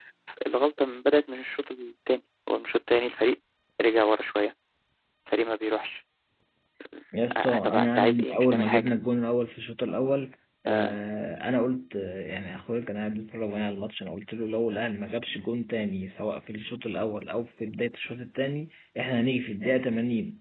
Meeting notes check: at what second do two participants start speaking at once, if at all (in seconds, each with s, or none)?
7.3 s